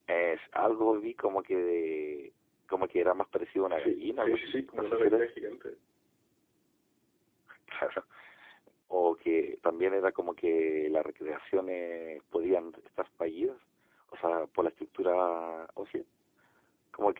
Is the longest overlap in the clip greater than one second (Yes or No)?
Yes